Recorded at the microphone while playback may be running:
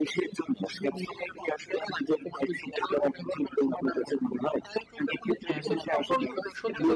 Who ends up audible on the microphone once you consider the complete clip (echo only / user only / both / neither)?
both